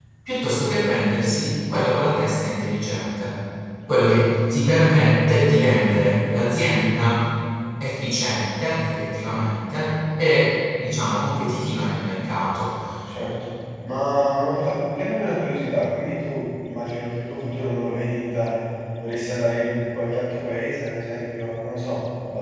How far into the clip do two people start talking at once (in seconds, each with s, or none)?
none